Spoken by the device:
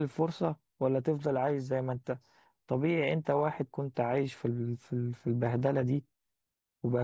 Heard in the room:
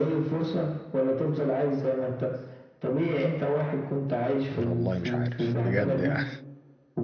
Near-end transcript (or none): والله مش عارف بجد يعني